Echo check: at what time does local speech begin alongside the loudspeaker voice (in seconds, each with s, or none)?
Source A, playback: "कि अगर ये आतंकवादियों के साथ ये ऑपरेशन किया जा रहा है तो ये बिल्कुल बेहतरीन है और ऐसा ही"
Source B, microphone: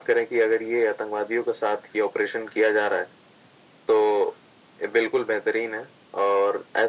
none